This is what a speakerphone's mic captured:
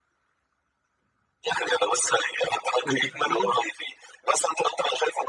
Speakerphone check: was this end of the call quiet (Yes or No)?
No